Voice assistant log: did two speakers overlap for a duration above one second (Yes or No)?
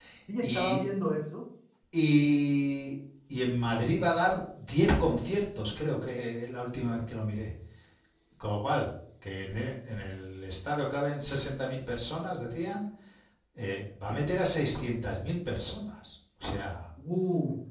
No